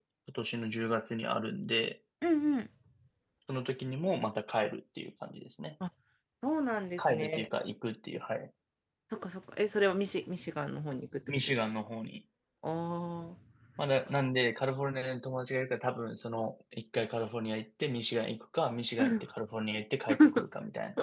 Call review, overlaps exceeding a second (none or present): none